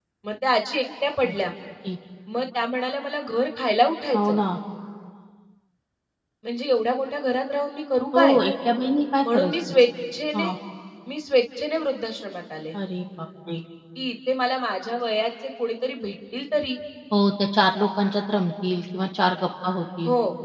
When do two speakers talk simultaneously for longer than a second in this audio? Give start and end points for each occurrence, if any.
none

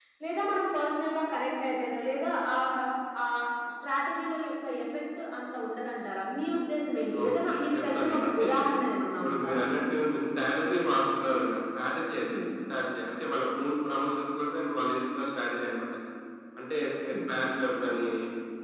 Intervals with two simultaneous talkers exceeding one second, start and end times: 7.3-8.5

